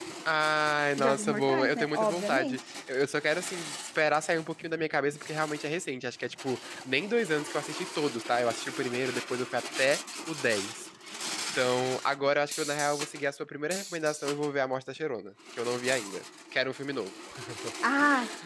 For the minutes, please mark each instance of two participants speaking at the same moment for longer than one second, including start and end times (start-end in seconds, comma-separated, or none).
1.0-2.6